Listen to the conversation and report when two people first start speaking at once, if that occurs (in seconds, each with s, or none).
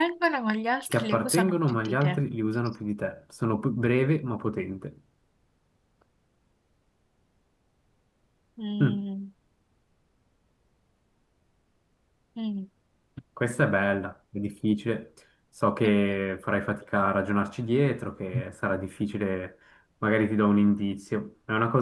0.9 s